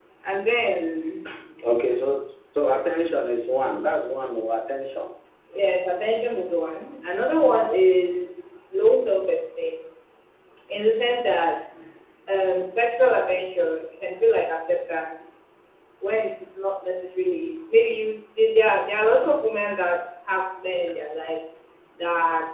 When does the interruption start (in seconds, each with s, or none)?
none